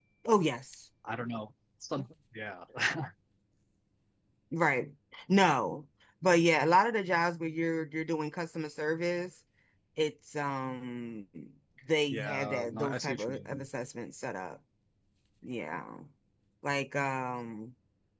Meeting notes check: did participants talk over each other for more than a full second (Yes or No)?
Yes